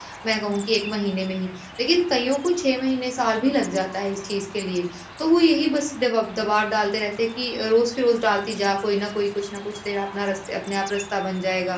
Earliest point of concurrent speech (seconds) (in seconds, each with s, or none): none